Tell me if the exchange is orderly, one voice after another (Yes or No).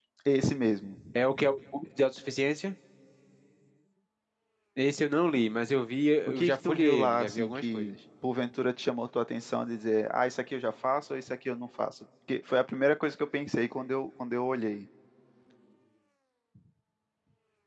No